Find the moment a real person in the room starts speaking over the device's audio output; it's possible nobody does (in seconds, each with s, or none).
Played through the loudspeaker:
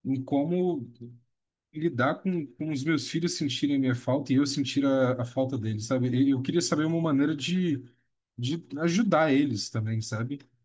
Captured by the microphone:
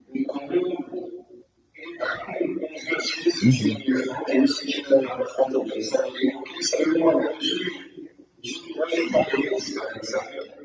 3.4 s